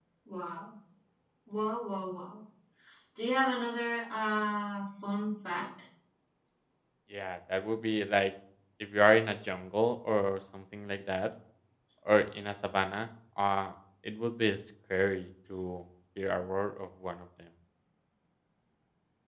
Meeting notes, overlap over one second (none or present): none